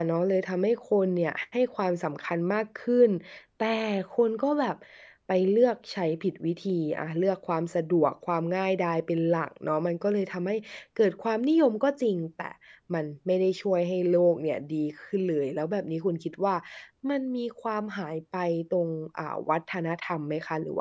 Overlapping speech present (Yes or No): No